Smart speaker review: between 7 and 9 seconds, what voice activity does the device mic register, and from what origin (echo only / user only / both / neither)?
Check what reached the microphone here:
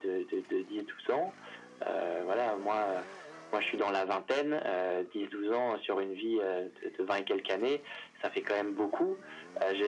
echo only